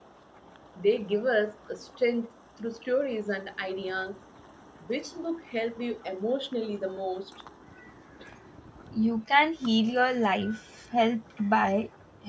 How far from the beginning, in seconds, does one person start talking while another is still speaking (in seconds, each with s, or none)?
none